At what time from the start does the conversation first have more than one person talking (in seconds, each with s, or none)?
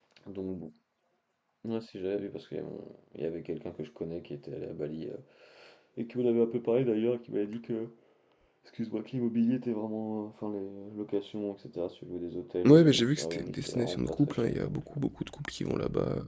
12.6 s